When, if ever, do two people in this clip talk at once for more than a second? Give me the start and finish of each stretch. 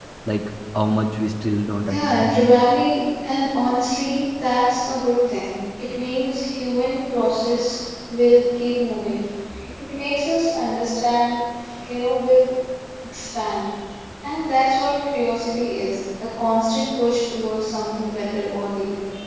none

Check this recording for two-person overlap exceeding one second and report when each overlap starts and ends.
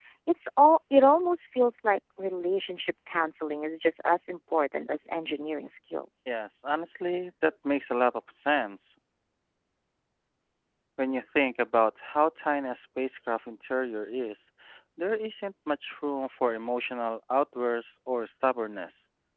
none

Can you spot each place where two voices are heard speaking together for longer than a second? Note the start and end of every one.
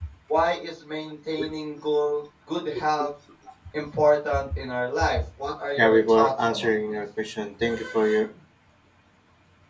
5.8-7.0

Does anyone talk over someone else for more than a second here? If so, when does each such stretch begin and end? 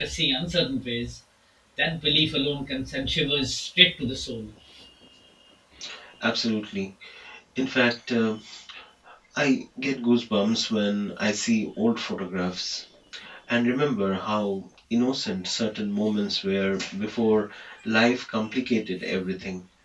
none

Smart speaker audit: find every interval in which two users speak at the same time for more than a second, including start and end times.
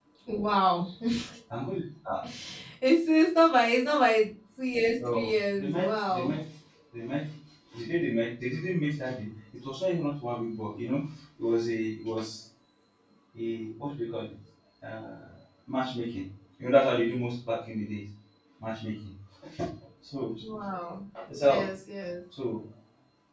5.0-6.3

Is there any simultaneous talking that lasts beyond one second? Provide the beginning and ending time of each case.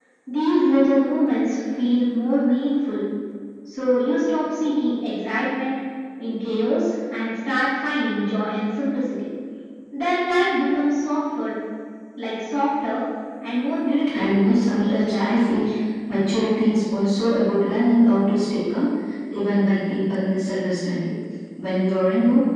14.2-15.6

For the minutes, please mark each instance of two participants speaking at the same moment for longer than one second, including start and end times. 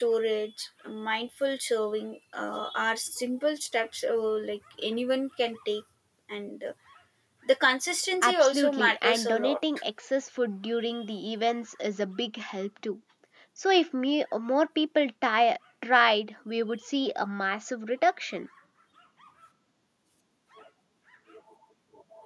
8.2-9.6

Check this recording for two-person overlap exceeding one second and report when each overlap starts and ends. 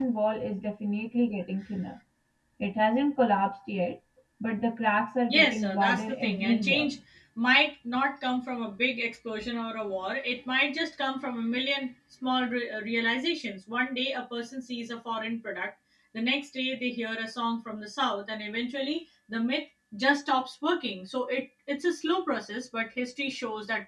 5.3-6.9

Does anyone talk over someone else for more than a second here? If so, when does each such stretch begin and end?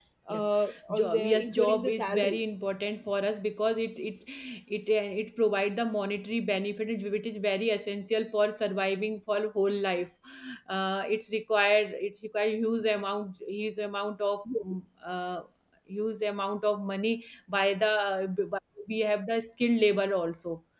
0.9-2.4

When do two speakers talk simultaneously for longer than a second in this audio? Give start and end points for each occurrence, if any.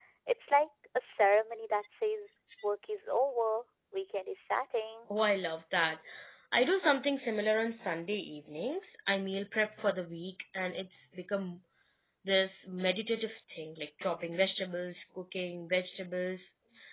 none

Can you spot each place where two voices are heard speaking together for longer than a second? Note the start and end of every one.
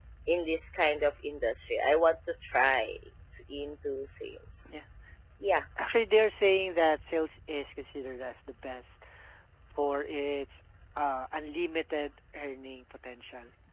none

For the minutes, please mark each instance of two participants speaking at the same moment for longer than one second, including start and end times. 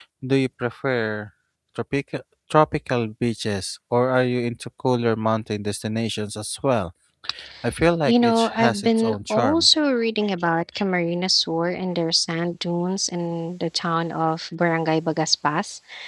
8.1-9.7

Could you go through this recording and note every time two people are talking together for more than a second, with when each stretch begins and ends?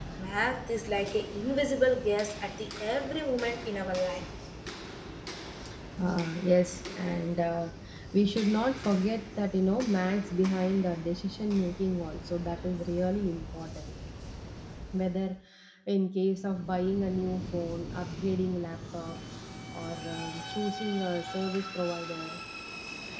none

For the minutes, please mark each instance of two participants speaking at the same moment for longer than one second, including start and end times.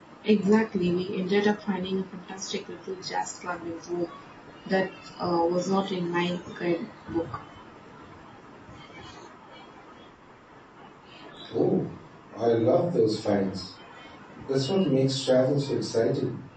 none

